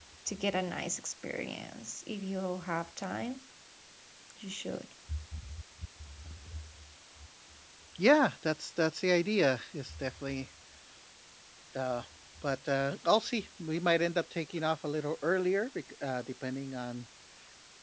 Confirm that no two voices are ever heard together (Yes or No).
Yes